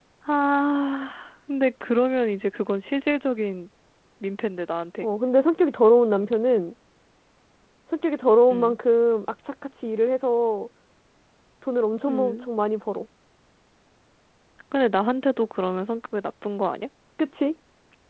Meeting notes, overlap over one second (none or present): none